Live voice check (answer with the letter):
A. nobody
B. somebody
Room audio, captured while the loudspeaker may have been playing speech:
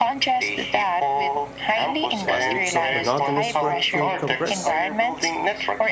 B